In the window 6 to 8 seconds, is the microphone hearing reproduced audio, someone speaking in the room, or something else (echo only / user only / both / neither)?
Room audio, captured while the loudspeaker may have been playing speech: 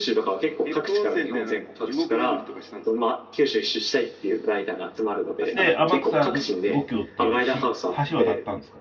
both